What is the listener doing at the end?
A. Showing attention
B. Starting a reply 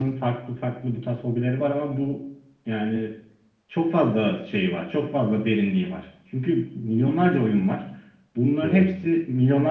A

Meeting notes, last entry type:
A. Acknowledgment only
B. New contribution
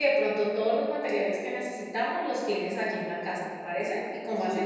B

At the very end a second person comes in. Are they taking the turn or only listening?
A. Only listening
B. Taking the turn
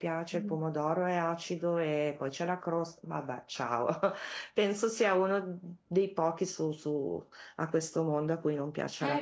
A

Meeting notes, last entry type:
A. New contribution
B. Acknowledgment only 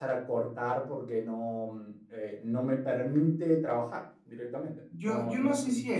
A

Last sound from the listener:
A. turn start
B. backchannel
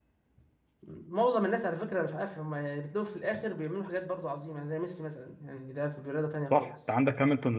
A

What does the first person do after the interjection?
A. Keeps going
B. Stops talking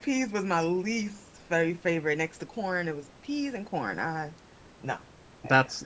B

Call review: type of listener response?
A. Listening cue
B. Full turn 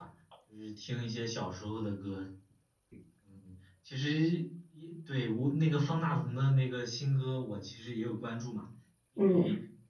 A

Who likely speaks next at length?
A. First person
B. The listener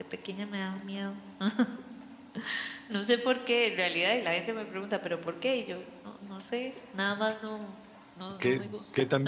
B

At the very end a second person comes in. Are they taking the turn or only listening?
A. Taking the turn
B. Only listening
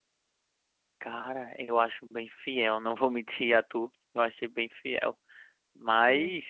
B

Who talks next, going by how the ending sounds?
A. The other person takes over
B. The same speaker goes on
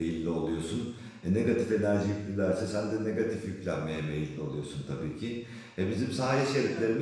B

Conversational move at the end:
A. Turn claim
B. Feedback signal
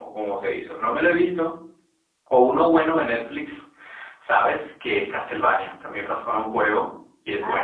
A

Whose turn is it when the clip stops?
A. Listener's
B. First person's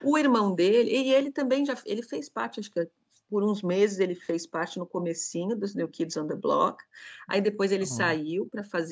B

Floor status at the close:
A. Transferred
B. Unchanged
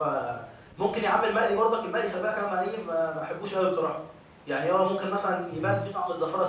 B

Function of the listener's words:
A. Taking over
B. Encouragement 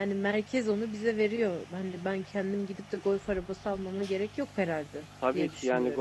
A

